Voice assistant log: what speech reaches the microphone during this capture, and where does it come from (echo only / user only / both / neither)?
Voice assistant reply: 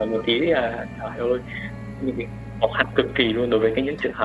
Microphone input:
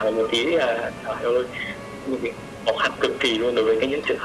echo only